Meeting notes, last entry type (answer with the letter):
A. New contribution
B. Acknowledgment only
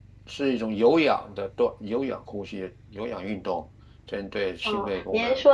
A